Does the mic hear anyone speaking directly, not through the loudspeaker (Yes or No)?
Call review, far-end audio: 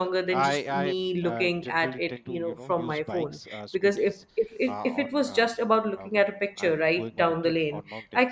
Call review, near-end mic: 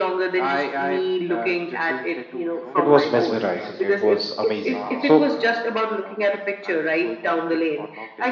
Yes